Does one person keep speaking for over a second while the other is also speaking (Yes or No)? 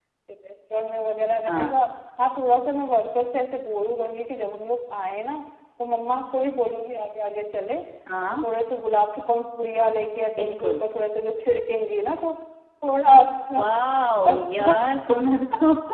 No